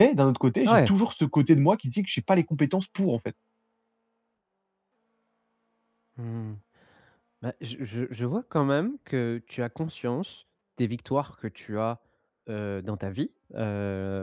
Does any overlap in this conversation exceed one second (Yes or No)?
No